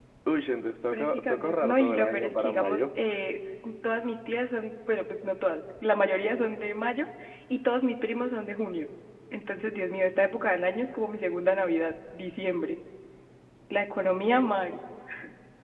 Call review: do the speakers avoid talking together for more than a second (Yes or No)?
No